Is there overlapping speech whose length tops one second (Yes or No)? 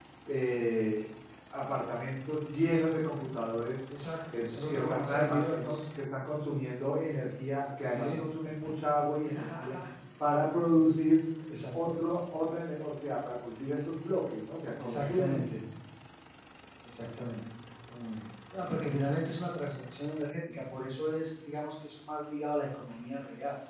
Yes